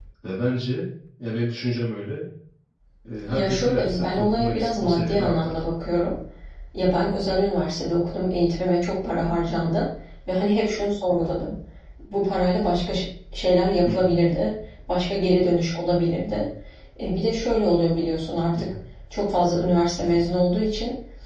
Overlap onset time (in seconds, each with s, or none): 3.3 s